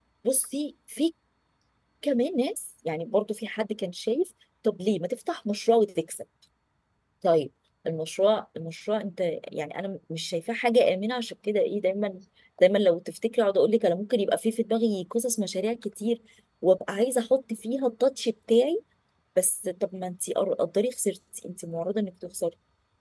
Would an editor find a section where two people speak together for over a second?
No

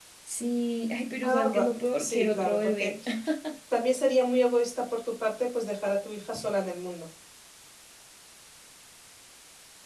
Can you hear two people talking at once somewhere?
Yes, from 1.2 s

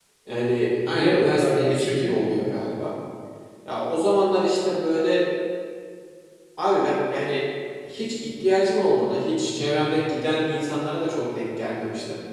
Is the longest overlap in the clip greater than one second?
Yes, from 0.9 s

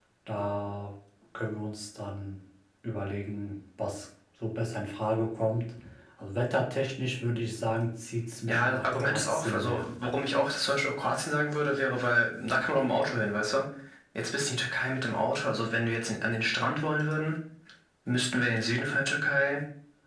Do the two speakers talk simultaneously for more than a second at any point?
Yes, from 8.5 s

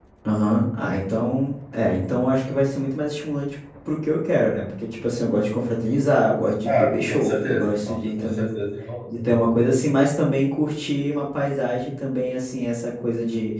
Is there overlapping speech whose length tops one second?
Yes, from 6.7 s

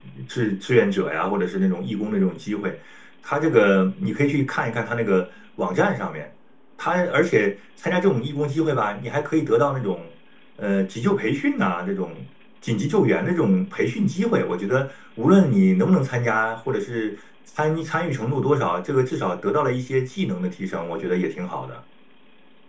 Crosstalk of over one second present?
No

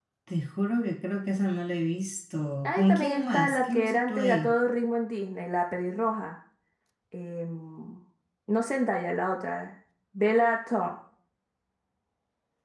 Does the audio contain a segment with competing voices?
Yes, from 2.6 s

